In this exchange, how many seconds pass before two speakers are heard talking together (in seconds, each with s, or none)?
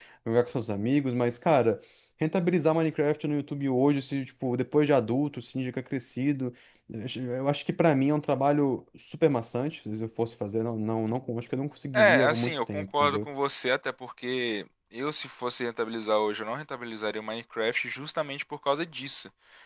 11.9 s